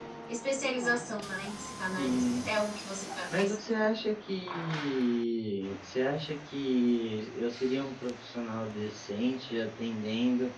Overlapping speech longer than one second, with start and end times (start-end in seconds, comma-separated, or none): none